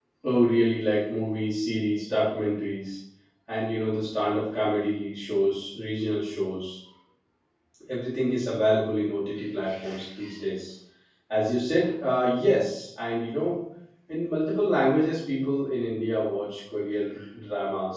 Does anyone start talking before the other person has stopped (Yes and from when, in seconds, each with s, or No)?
No